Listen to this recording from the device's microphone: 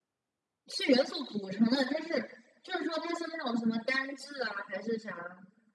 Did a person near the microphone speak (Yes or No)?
No